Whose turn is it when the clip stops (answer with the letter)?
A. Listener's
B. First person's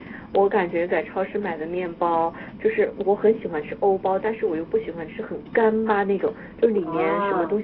B